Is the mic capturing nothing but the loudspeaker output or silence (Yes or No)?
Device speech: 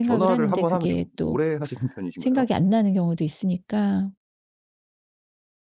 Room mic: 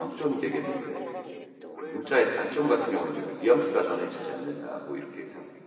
No